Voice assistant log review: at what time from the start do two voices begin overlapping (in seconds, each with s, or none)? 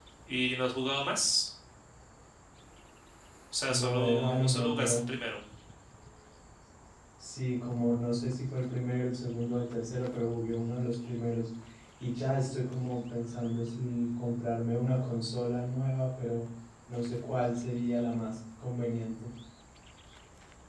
3.7 s